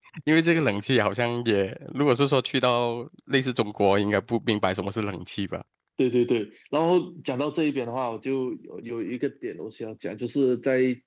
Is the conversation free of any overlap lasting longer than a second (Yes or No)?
Yes